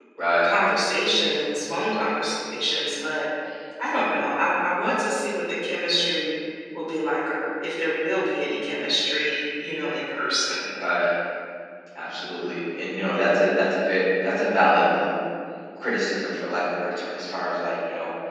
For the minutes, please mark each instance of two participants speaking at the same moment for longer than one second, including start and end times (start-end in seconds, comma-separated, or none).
none